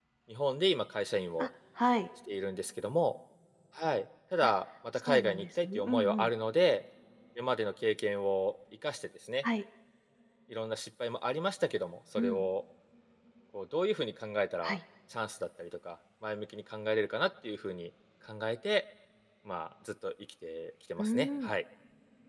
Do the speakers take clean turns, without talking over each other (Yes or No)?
No